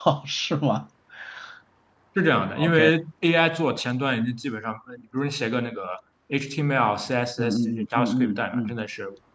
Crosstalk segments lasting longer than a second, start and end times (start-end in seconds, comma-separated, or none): 7.4-8.7